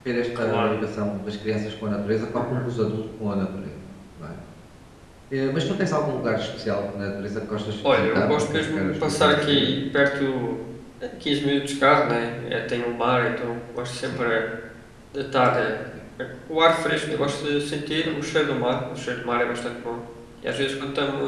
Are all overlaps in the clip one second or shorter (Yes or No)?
No